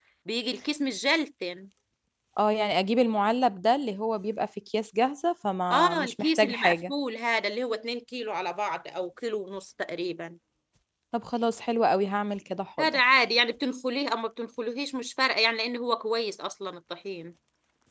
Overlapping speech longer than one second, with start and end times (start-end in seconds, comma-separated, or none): 5.7-6.9